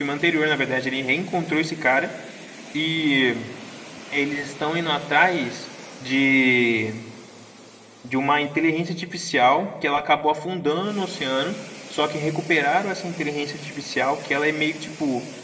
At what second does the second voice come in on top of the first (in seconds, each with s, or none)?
none